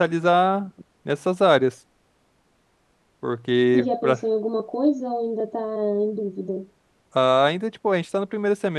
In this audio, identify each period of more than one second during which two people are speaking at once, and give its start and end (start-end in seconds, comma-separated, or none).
none